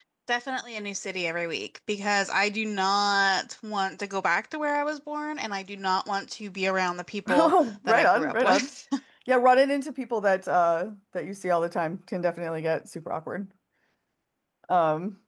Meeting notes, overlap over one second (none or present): present